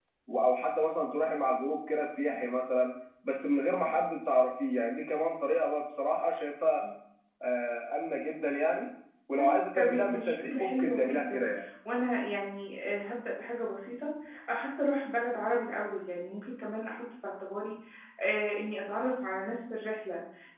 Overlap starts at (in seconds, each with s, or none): 9.4 s